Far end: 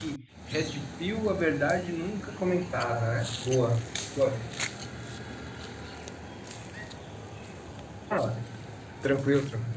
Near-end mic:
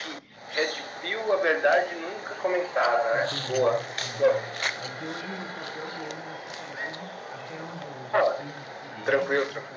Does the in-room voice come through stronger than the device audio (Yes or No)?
No